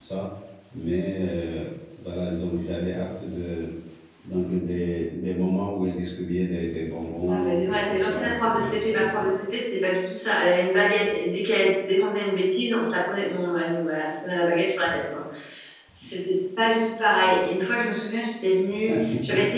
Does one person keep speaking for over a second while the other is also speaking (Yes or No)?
Yes